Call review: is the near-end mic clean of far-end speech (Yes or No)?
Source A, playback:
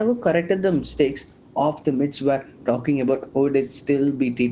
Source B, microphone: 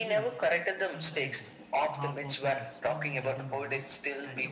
No